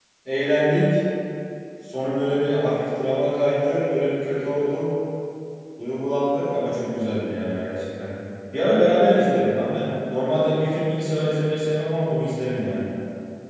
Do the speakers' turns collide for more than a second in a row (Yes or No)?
No